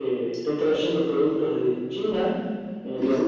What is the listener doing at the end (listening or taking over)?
listening